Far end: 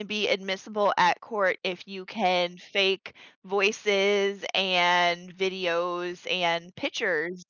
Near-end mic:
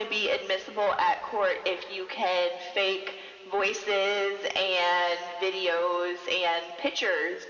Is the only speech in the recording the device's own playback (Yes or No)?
Yes